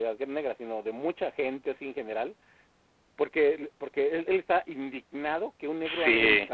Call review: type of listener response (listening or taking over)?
listening